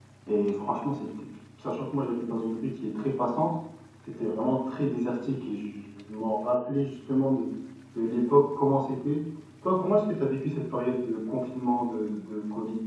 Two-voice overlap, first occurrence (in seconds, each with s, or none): none